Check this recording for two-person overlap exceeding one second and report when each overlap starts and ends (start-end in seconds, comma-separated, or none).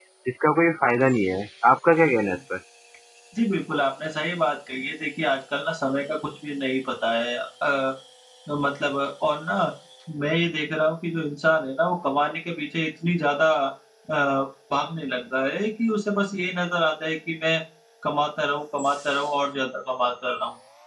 none